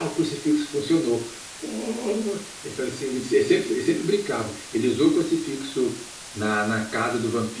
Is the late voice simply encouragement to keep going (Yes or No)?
Yes